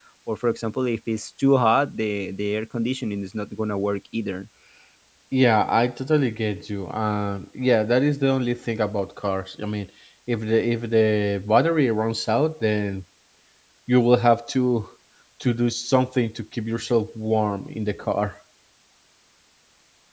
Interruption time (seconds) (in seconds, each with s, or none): none